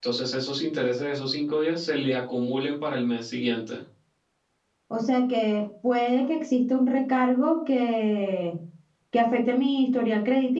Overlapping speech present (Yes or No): No